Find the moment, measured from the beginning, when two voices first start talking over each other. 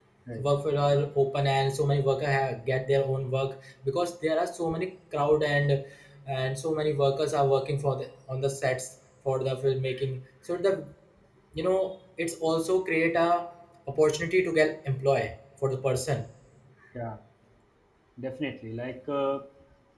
none

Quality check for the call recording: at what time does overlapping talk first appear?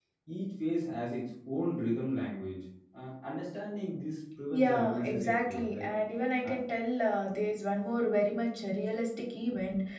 4.5 s

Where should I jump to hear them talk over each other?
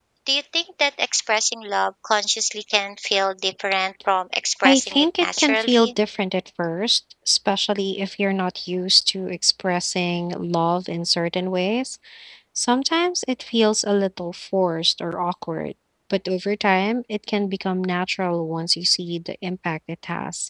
4.6 s

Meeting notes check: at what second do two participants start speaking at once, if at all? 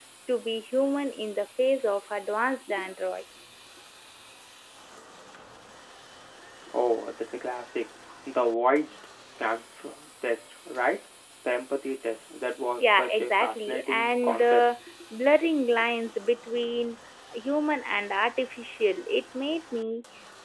12.8 s

